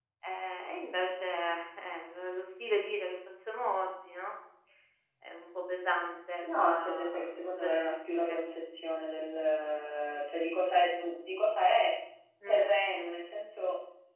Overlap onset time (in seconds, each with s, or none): 6.4 s